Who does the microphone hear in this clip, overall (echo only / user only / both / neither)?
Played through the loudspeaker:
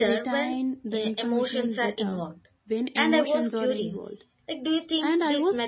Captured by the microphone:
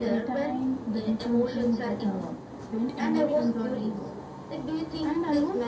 echo only